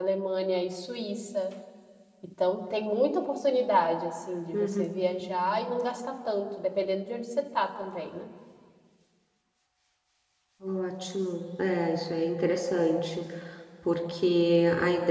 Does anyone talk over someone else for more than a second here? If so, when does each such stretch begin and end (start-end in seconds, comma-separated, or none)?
none